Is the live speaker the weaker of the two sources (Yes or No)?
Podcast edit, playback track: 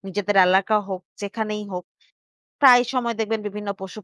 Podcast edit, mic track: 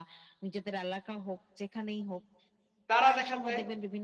No